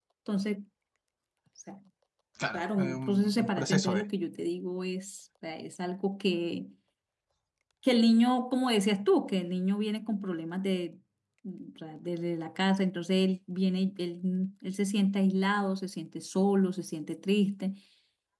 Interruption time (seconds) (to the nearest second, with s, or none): 3 s